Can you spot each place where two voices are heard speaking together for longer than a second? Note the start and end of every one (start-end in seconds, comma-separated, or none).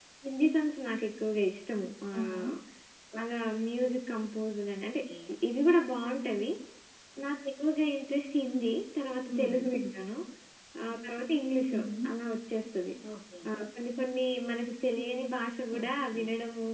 none